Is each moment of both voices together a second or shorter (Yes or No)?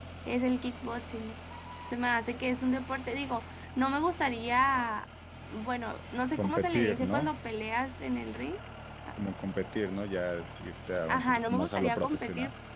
No